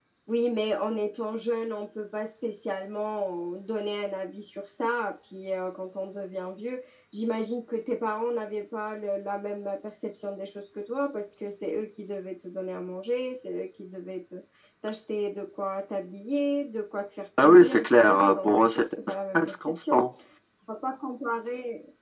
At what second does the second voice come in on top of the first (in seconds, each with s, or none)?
17.4 s